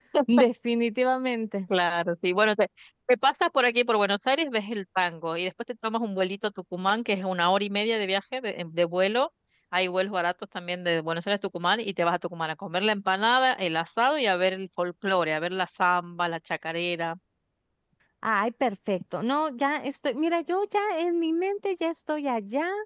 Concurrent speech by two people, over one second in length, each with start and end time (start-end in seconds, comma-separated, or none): none